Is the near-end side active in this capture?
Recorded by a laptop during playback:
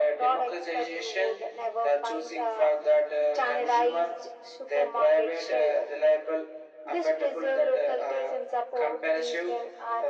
No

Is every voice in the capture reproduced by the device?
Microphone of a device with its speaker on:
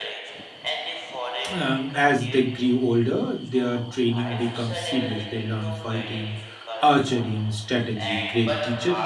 No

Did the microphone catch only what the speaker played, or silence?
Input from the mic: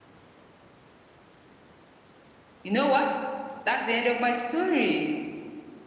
No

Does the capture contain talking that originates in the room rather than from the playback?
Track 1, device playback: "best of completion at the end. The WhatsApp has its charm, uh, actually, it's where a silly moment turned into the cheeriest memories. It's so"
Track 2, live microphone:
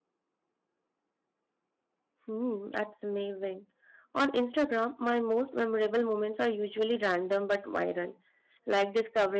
Yes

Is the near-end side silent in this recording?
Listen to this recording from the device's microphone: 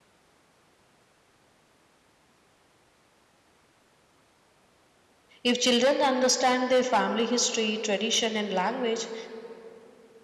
No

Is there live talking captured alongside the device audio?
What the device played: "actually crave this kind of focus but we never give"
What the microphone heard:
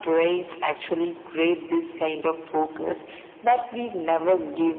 No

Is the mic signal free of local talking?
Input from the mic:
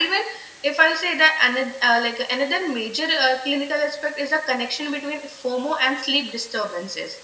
Yes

